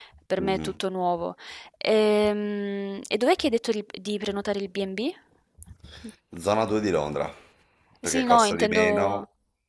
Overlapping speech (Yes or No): Yes